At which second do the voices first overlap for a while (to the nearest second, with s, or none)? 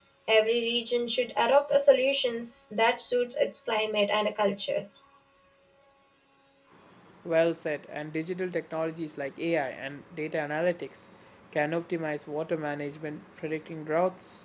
none